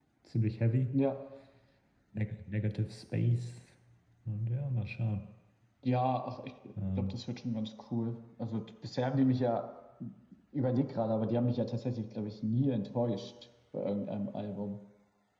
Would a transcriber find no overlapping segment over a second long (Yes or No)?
Yes